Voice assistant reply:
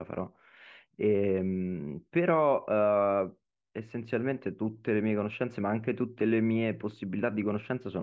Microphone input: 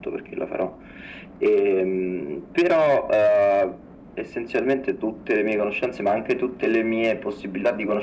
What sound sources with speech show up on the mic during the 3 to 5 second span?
echo only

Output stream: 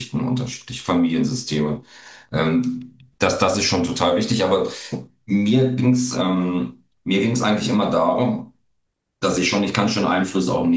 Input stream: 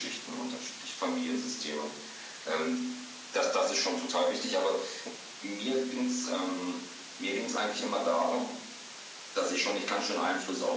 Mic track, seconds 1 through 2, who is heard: echo only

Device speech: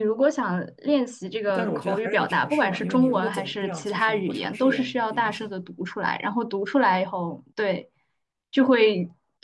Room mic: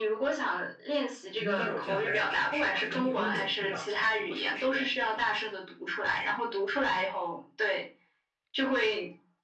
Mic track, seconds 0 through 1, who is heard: echo only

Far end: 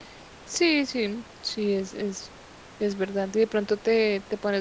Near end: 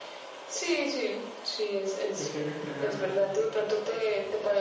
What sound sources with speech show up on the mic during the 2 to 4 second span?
both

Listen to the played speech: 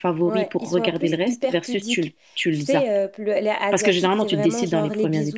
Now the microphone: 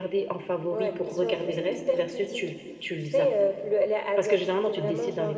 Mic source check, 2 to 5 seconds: echo only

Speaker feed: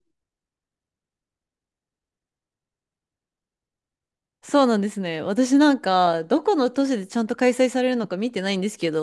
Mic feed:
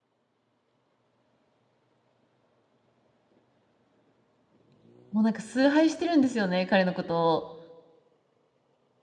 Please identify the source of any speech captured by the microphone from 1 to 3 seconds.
neither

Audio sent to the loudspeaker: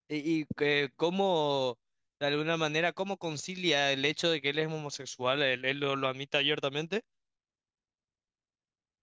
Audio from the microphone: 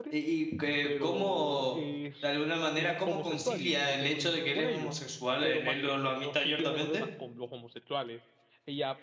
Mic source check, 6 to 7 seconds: both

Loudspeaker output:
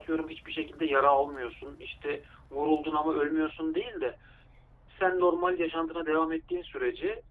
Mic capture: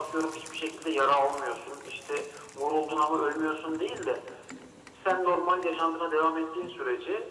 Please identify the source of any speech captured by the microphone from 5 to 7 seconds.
echo only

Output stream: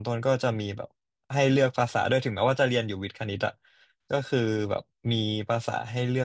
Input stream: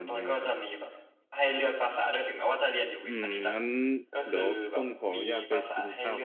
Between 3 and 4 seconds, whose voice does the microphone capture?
both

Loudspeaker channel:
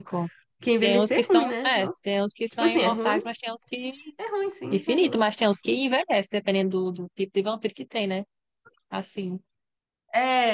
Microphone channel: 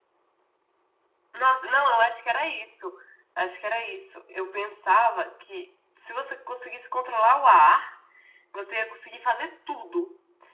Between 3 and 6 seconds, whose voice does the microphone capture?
user only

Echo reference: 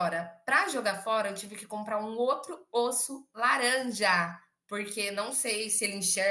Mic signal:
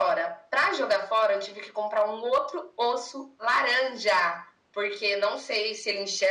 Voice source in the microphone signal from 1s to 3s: echo only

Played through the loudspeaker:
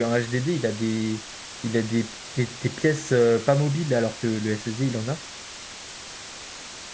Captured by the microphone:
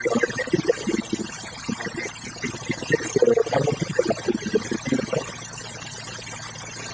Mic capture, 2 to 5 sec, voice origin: echo only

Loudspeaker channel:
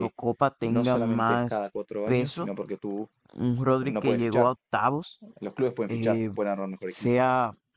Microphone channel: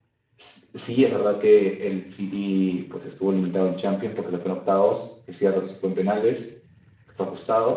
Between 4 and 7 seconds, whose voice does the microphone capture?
user only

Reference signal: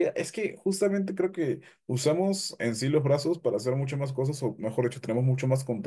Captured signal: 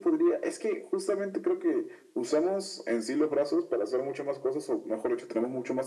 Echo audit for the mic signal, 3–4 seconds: echo only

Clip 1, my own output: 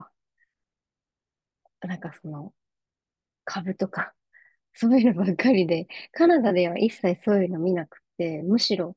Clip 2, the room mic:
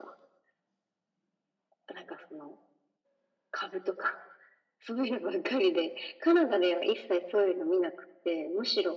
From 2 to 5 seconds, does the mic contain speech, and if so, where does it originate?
echo only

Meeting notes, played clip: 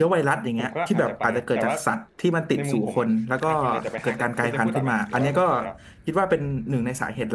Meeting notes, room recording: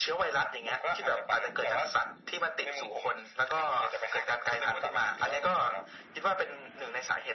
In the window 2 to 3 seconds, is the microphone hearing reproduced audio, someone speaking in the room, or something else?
echo only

